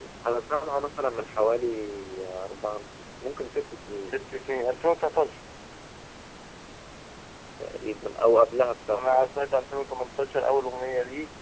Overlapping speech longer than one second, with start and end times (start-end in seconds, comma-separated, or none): none